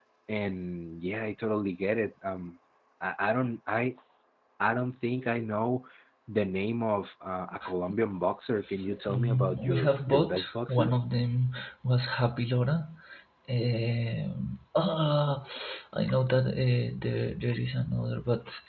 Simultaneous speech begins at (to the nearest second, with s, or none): 9 s